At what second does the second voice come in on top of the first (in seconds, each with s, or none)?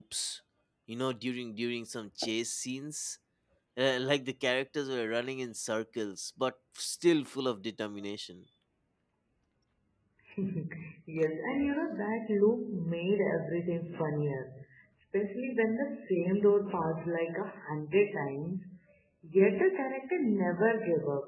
none